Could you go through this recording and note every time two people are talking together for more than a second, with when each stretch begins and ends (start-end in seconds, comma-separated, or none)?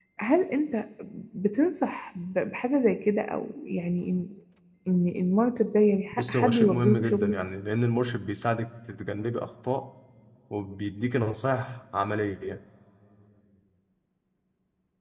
6.1-7.4